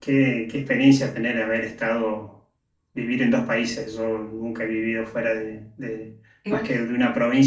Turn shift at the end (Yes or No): No